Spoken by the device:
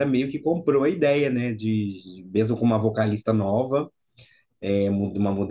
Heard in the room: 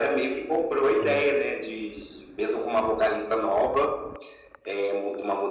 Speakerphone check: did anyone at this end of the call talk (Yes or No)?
Yes